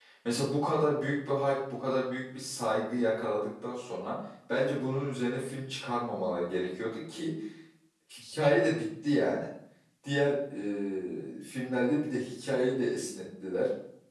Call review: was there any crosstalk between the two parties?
No

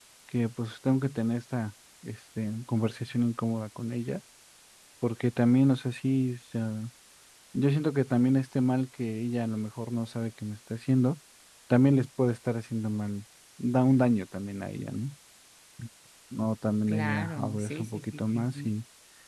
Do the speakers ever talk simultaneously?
Yes, from 16.9 s

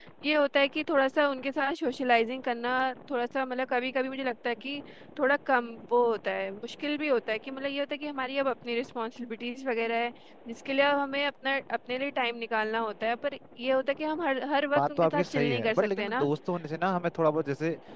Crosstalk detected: Yes, from 14.8 s

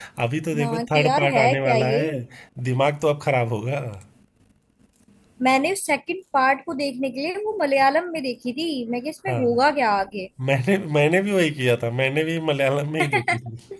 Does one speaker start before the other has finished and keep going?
Yes, from 0.6 s

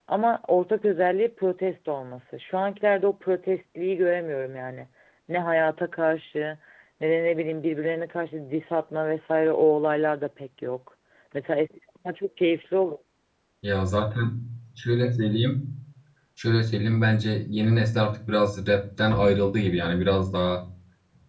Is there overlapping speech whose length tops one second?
No

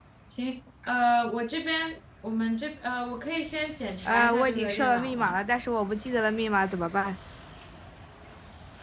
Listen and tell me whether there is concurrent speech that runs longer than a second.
Yes, from 4.0 s

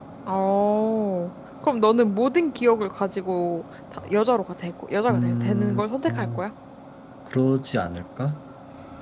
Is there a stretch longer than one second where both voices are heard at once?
Yes, from 5.1 s

